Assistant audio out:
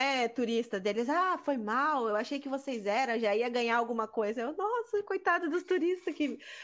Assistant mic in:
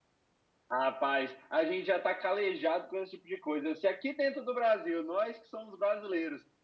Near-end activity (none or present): present